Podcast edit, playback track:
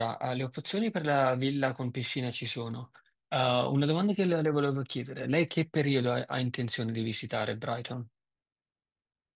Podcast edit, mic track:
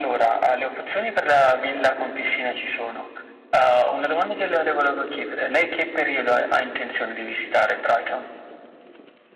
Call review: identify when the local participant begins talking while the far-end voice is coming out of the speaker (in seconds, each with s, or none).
none